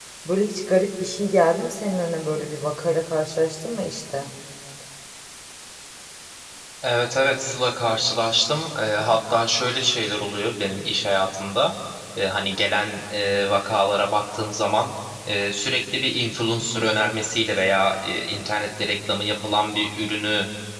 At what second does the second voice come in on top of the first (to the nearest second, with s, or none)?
none